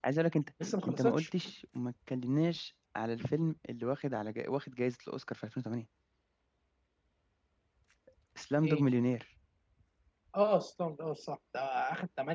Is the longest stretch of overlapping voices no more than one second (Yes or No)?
Yes